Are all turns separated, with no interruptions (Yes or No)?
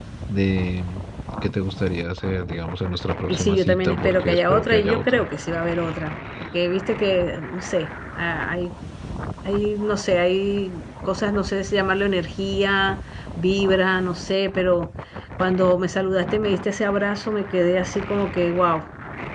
No